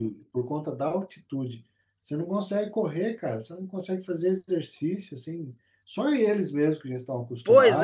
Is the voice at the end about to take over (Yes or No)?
Yes